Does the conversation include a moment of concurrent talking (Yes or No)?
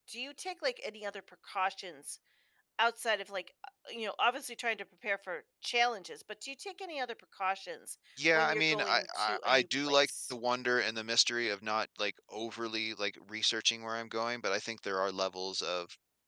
Yes